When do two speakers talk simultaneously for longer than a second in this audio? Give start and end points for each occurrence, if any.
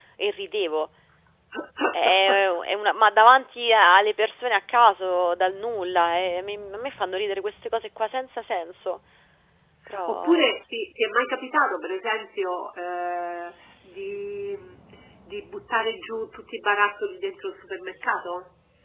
none

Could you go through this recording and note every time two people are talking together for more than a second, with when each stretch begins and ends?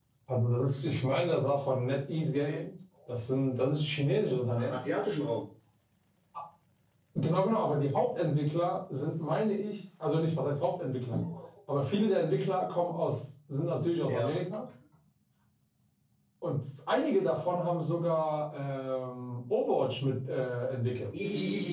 none

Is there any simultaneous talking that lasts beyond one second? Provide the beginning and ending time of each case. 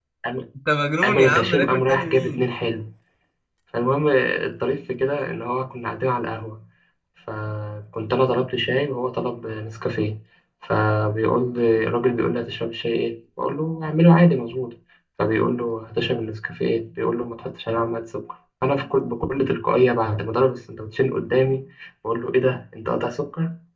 1.0-2.5

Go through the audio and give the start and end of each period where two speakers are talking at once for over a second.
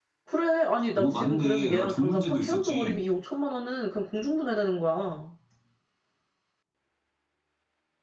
1.0-3.0

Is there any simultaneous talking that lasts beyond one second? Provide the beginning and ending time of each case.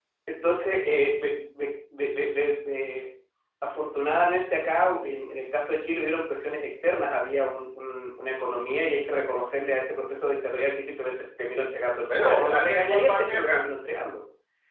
12.2-13.6

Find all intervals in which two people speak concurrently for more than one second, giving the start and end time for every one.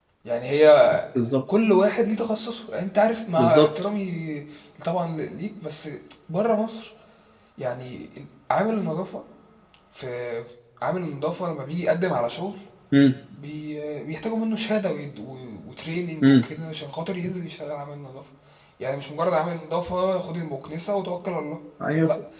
none

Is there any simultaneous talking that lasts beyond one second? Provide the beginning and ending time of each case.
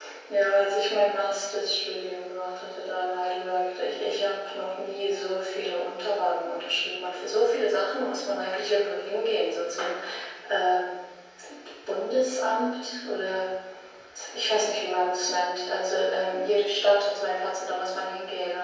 none

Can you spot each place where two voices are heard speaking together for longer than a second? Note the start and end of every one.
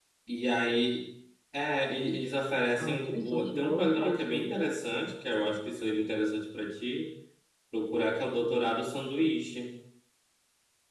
2.8-4.5

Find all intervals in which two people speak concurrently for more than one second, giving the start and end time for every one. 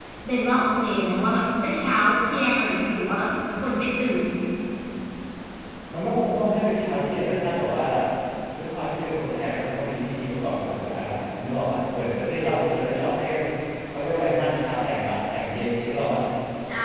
none

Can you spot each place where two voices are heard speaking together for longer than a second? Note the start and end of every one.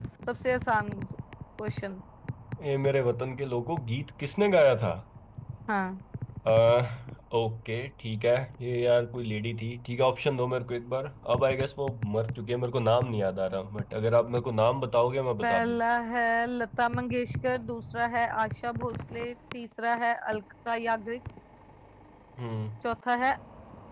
none

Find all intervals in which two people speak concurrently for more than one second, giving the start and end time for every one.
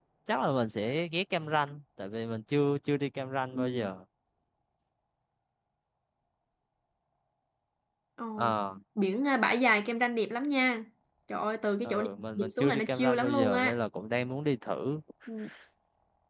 11.8-13.8

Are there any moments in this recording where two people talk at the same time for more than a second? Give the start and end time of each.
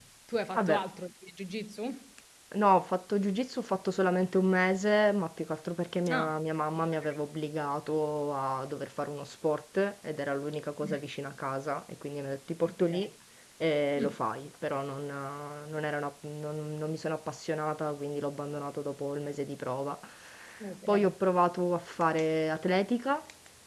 none

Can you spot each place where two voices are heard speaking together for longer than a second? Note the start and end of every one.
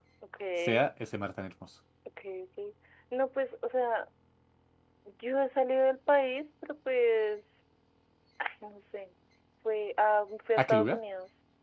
none

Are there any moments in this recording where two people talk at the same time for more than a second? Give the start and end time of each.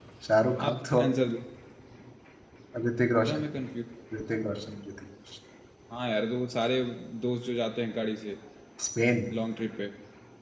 none

